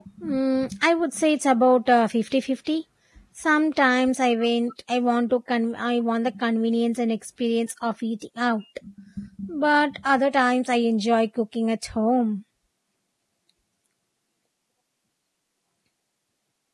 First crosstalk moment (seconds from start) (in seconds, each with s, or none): none